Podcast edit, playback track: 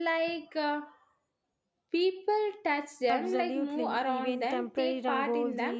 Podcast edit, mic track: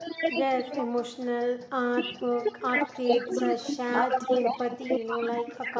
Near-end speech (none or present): present